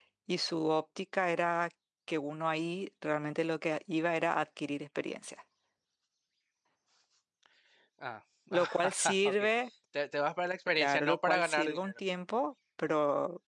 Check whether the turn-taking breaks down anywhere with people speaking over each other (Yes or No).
Yes